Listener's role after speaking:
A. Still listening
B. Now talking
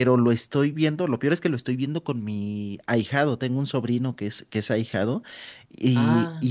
A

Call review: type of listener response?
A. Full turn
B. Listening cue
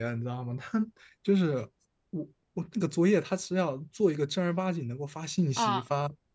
B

